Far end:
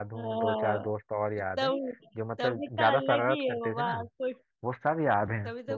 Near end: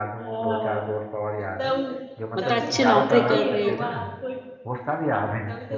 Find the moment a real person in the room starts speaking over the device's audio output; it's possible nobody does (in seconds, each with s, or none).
2.4 s